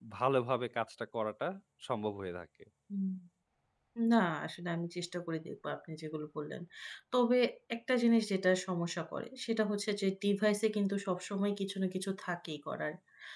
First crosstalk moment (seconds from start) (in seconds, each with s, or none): none